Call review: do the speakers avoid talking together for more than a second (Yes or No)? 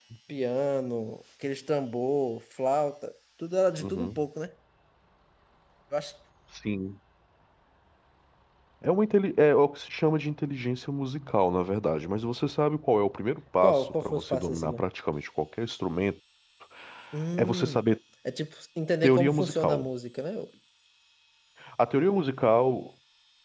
No